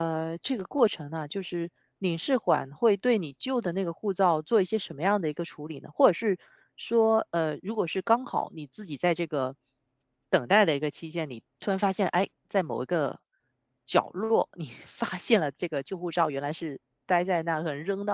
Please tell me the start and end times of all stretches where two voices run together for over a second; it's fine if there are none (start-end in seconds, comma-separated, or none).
none